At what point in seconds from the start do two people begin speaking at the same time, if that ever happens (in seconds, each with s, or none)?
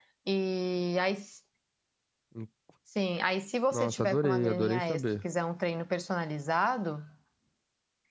3.7 s